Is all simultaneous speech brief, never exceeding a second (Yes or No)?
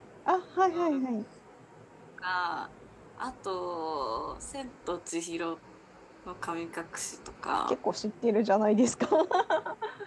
Yes